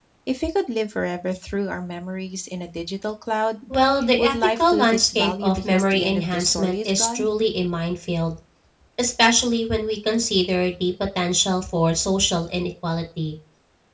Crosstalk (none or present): present